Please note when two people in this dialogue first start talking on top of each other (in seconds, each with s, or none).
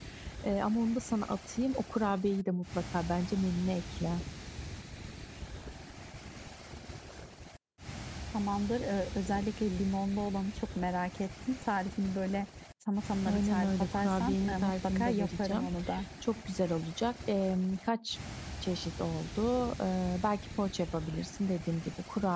13.2 s